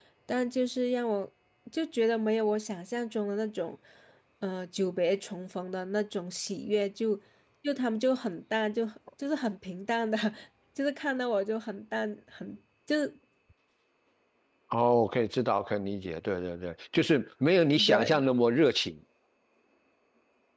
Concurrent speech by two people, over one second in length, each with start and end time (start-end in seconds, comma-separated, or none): none